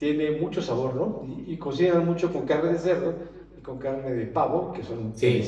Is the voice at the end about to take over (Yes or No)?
Yes